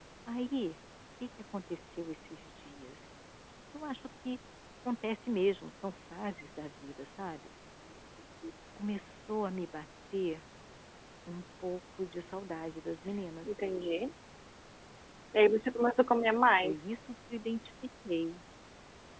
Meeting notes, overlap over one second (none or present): none